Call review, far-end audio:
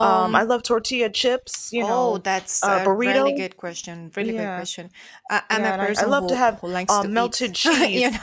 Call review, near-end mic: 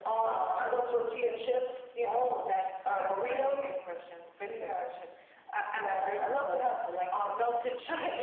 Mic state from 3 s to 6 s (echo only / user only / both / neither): echo only